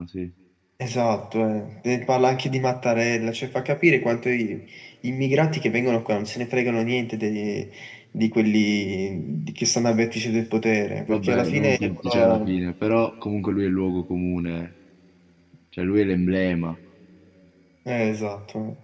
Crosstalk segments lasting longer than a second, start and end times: 11.1-12.6

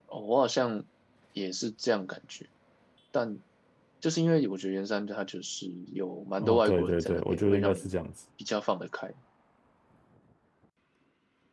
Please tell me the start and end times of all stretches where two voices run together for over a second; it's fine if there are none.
6.4-7.9

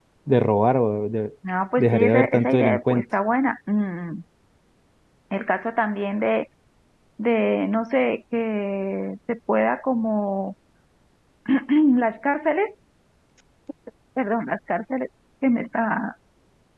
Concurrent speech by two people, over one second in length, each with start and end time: 1.8-3.0

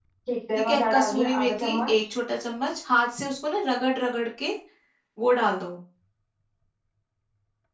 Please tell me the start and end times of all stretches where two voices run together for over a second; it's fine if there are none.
0.6-1.9

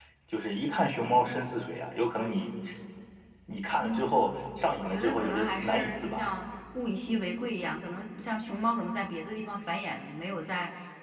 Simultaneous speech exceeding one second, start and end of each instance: 4.8-6.3

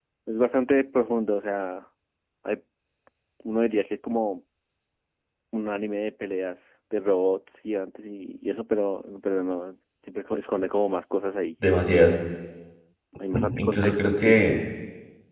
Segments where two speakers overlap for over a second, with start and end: 13.3-14.6

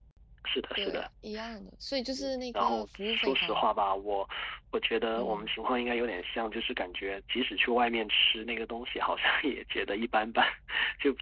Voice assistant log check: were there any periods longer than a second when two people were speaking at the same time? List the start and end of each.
2.2-3.6

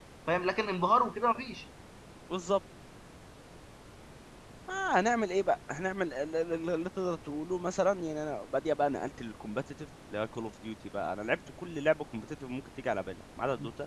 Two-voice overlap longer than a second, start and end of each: none

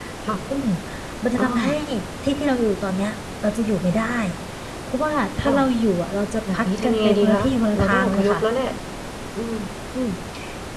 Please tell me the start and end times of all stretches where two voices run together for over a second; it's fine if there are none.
6.5-8.4

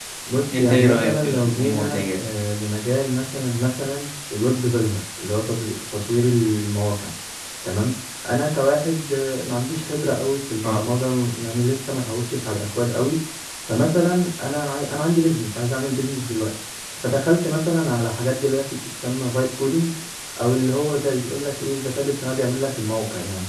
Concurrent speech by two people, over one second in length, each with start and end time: 0.6-2.2

